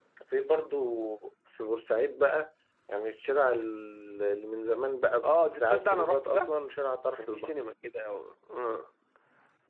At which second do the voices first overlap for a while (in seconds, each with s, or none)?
5.2 s